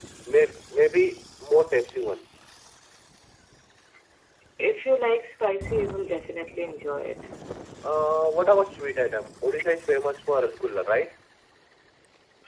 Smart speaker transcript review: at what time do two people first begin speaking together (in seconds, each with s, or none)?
none